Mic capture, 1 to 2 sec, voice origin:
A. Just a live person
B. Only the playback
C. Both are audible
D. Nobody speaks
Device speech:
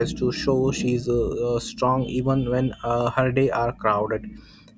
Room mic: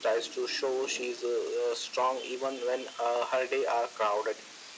B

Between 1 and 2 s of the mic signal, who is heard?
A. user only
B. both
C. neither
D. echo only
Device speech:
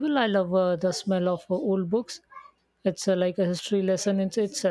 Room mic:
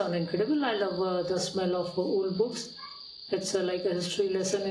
D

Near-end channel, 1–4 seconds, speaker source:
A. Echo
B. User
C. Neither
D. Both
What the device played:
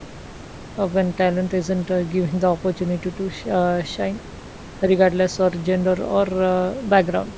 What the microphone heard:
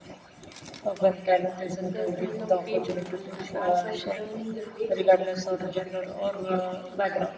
D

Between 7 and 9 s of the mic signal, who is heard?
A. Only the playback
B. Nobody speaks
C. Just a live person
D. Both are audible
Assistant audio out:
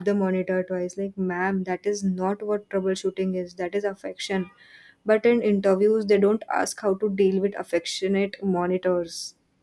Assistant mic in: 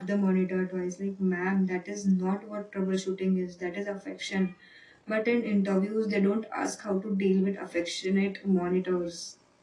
A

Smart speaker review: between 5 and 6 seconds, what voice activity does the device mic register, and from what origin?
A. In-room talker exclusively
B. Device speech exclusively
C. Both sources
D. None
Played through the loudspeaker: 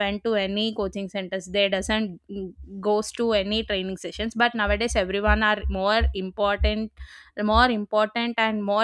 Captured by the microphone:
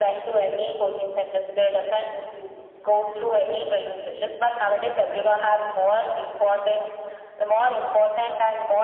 B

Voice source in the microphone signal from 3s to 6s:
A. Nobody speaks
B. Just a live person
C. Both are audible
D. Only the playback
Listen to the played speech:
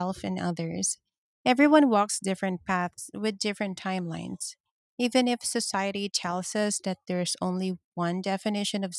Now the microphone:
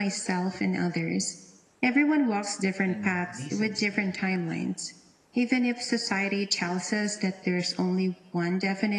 C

